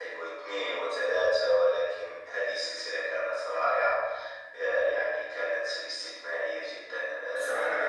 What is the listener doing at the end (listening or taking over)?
taking over